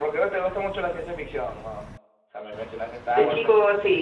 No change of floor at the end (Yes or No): No